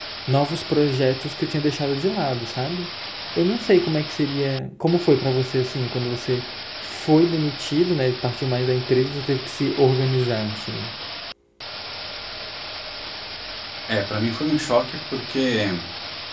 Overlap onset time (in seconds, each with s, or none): none